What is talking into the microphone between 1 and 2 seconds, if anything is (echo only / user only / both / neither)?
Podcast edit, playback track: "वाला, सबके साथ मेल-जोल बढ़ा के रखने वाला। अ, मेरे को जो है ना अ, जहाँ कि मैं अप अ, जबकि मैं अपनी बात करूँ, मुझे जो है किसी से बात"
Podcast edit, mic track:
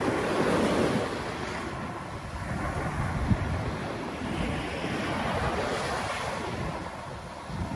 neither